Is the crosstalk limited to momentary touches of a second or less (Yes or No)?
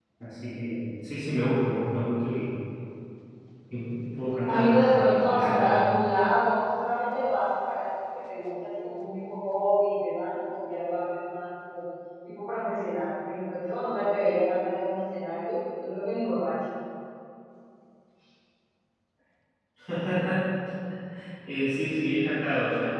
No